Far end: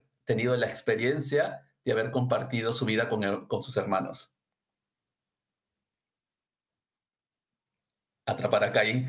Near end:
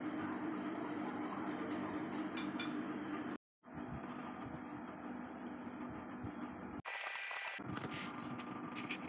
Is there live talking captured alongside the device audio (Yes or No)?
No